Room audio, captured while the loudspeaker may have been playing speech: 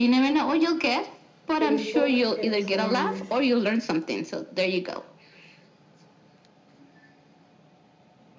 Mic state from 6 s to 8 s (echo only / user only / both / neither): neither